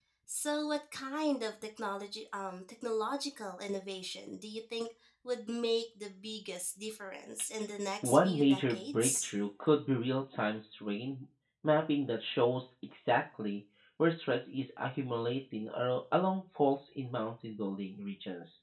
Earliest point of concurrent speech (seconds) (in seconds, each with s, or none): 8.0 s